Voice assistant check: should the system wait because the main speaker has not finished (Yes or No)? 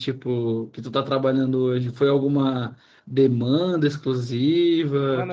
No